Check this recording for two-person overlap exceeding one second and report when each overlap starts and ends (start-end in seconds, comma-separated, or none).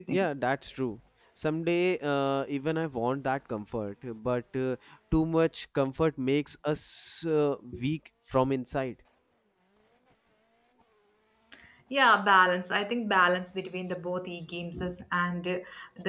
none